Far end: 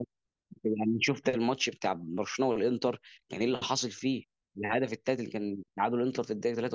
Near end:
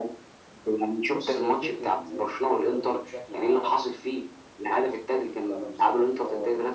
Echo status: present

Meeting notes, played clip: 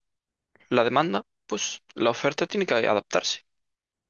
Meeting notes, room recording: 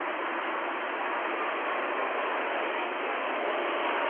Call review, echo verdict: none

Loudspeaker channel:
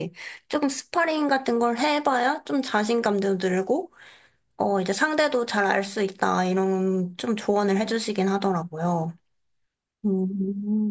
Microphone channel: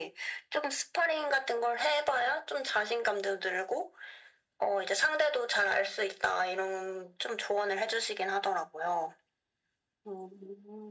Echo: present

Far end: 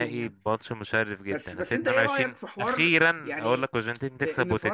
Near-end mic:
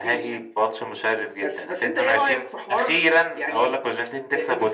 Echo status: present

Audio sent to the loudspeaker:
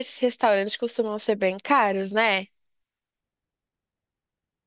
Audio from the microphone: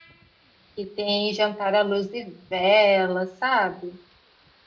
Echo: none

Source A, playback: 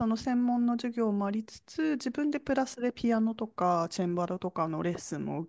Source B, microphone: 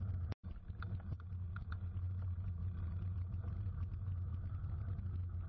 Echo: none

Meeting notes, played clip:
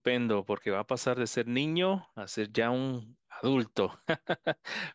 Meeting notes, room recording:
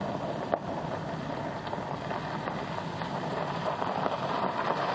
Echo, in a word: none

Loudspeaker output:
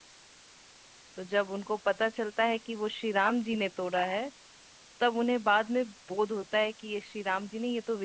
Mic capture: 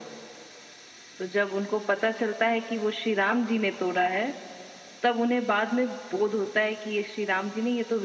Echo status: present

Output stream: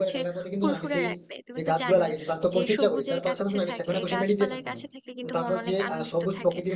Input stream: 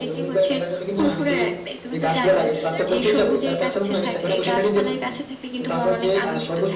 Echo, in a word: present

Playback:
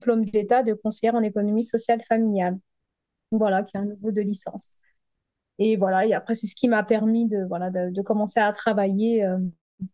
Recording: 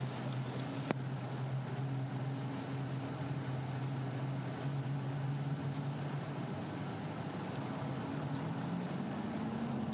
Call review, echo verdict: none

